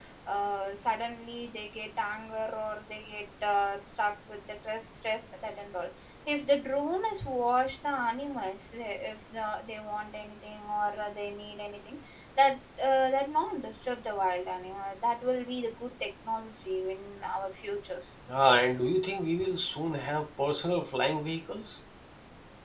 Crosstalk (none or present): none